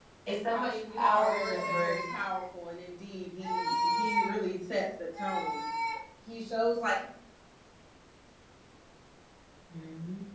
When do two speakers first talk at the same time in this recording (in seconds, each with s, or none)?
0.5 s